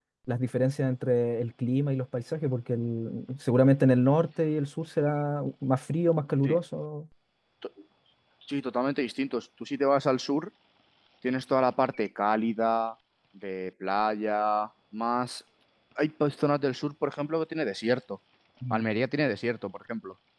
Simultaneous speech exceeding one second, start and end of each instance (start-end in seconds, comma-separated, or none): none